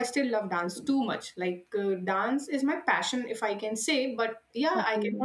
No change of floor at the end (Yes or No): Yes